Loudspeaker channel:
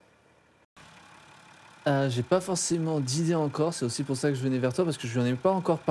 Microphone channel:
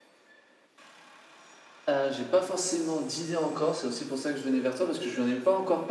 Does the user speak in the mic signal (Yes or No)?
No